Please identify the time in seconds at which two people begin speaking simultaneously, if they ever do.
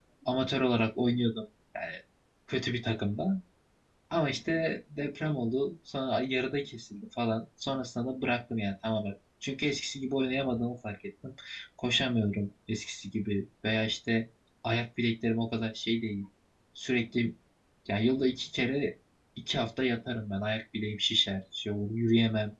none

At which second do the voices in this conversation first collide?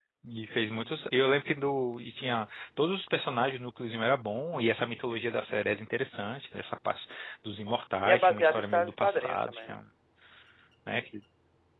8.0 s

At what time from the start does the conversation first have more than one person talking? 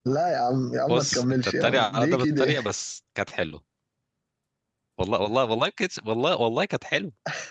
0.9 s

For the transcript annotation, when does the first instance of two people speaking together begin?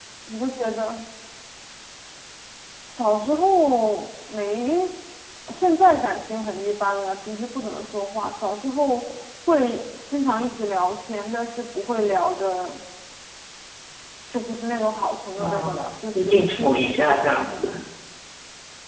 15.4 s

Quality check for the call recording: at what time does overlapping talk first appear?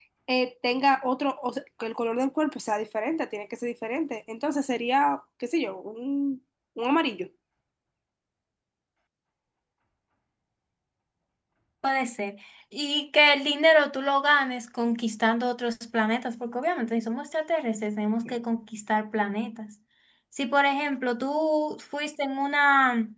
none

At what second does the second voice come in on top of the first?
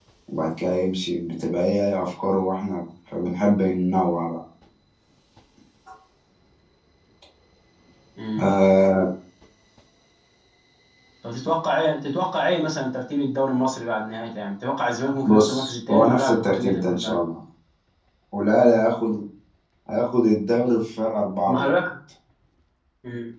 15.2 s

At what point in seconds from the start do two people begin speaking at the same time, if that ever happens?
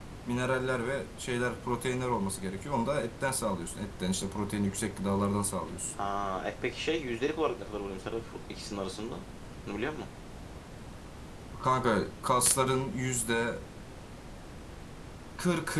none

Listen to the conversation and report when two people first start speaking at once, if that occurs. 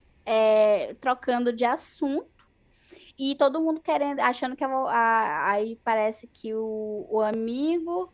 none

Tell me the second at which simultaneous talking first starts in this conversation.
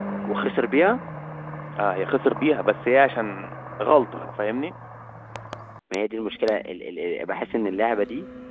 none

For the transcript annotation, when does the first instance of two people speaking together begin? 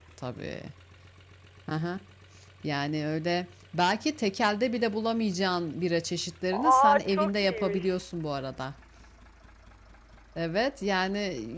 6.5 s

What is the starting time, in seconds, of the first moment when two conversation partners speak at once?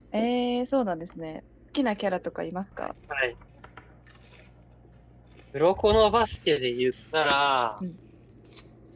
none

